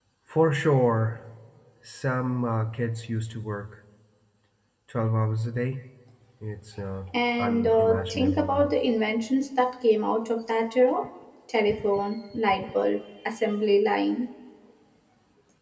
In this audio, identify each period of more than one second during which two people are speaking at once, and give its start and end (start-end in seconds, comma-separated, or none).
7.4-8.7